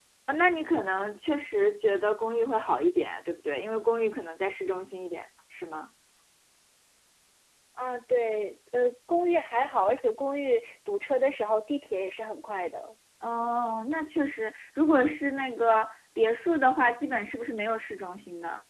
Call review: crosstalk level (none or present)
none